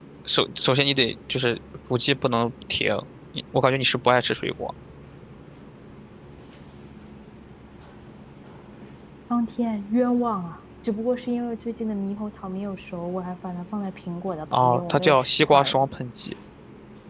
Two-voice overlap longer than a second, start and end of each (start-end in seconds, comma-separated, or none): 14.5-15.9